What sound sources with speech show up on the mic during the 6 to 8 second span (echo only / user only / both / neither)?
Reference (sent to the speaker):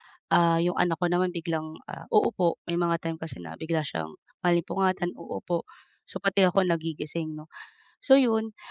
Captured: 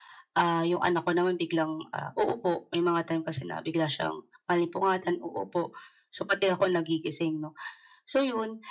echo only